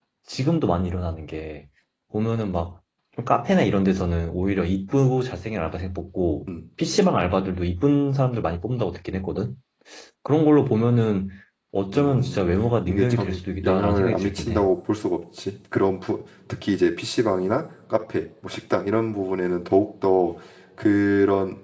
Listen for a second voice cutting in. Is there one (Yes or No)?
Yes